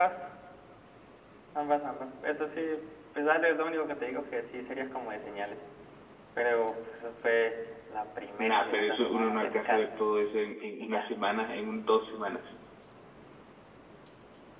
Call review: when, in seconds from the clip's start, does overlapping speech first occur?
8 s

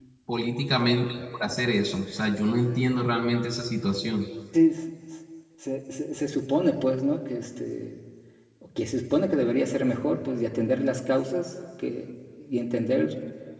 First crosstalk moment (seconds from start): none

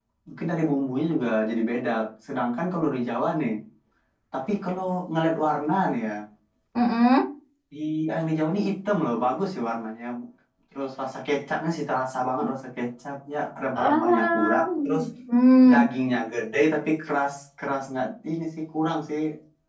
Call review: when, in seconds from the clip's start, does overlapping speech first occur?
14 s

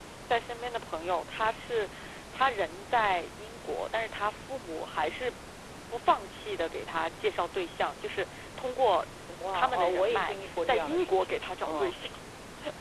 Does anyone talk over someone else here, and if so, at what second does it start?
9 s

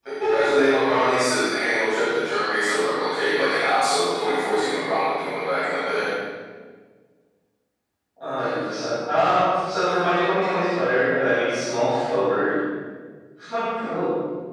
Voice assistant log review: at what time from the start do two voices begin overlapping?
none

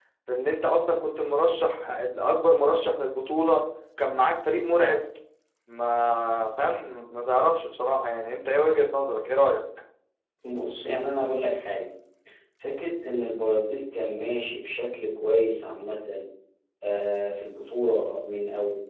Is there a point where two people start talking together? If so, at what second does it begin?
none

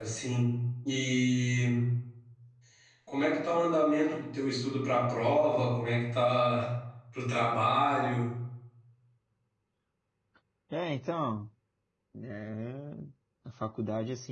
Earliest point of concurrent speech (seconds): none

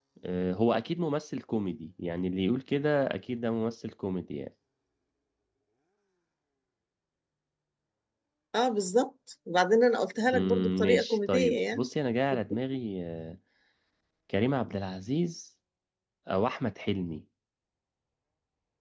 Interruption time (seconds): 10 s

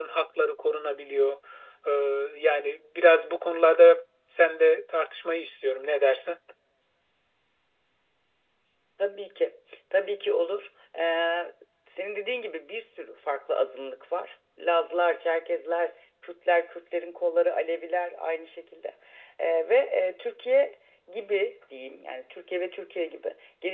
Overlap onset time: none

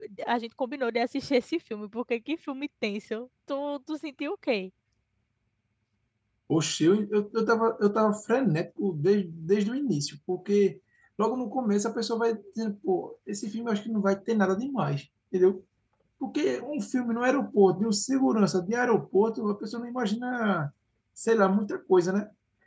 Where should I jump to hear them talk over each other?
none

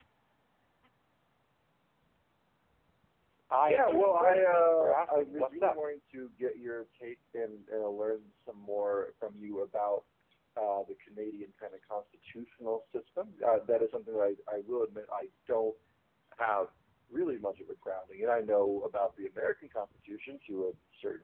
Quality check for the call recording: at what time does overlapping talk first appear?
4 s

